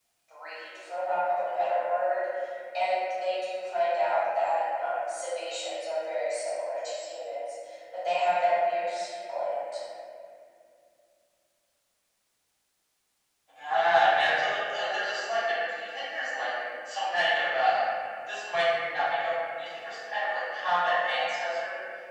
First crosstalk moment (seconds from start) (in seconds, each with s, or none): none